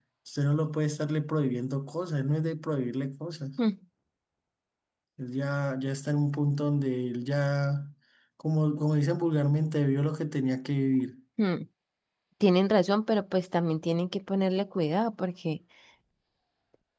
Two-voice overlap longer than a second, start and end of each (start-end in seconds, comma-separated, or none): none